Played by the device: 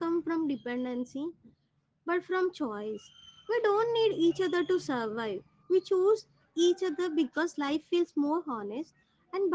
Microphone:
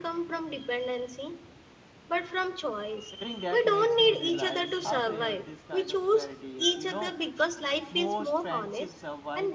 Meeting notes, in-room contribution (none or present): present